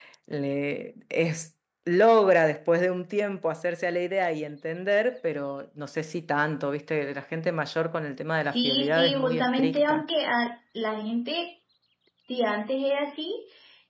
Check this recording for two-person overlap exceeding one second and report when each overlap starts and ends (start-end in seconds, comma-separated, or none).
8.5-10.0